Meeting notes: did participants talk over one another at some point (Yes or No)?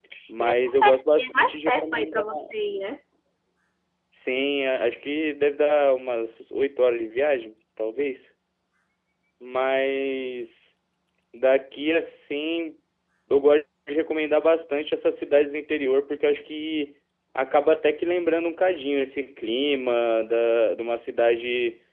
Yes